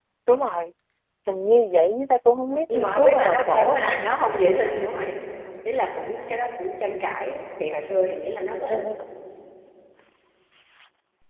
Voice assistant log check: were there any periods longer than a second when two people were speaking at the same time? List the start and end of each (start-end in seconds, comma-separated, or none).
2.7-4.0